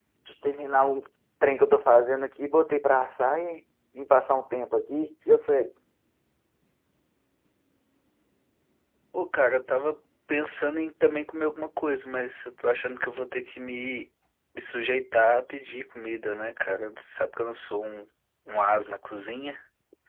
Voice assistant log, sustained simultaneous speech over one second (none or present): none